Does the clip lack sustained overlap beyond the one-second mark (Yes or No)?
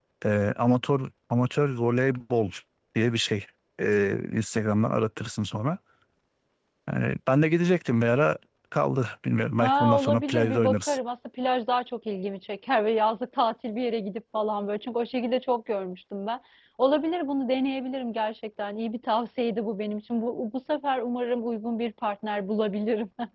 No